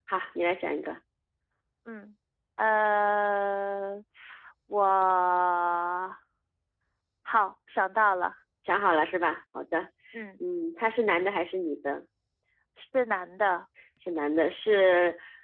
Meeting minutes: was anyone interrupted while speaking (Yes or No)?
No